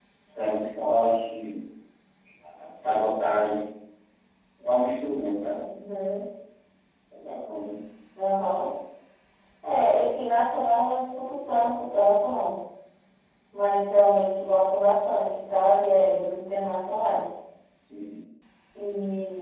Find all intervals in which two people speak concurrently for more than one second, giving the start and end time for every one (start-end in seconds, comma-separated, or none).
none